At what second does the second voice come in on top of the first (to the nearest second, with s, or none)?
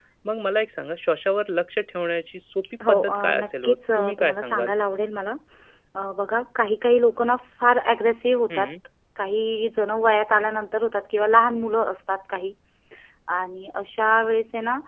3 s